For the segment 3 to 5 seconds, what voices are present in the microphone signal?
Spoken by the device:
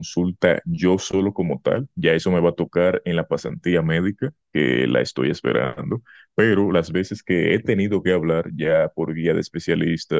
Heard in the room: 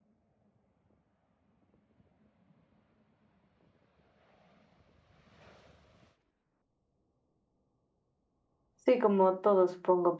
neither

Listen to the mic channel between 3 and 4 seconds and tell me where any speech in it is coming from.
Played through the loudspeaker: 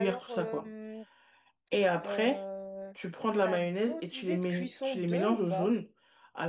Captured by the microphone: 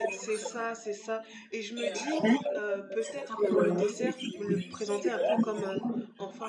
both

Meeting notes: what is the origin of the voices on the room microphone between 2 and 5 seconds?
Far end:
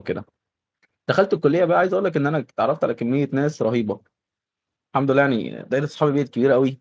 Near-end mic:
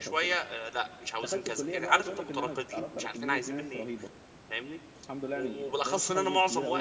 both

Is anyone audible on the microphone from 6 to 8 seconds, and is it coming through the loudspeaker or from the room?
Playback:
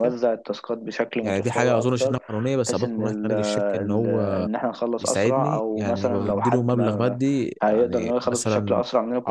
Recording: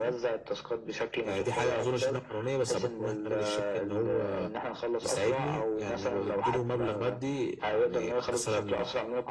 echo only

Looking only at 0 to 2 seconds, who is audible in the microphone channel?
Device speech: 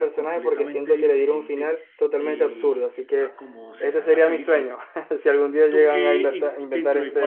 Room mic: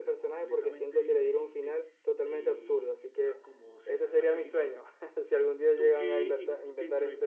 echo only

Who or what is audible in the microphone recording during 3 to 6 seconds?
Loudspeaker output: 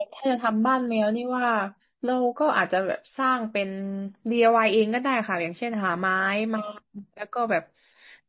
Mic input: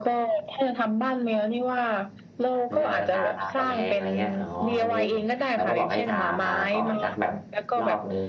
both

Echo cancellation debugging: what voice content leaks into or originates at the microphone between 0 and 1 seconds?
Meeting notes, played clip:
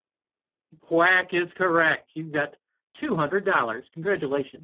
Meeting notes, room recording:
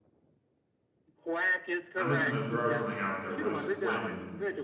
neither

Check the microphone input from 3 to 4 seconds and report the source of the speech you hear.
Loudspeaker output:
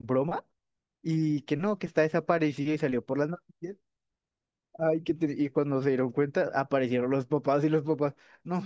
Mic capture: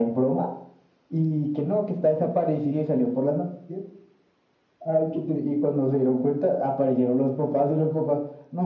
echo only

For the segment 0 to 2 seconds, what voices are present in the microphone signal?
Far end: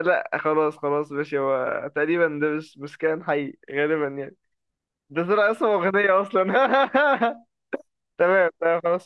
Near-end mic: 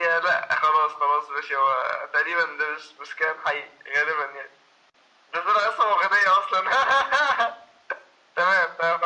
echo only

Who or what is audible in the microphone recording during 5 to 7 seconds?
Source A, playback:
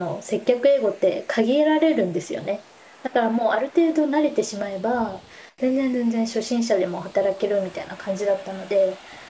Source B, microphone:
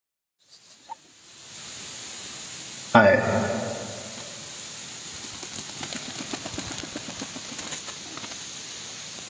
neither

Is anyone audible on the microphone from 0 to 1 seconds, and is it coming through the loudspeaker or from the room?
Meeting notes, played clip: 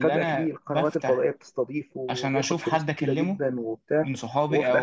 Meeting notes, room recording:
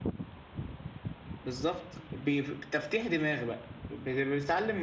neither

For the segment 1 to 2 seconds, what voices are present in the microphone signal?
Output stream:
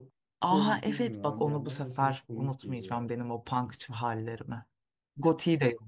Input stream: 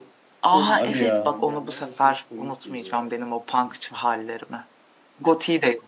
both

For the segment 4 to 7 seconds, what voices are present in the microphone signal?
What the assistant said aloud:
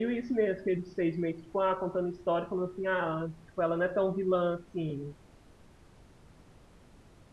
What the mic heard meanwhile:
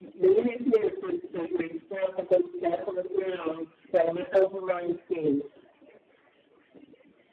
echo only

